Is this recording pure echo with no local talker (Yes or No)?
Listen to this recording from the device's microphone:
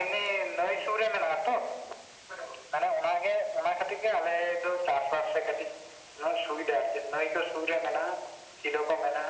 Yes